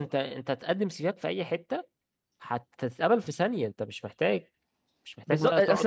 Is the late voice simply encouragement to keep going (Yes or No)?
No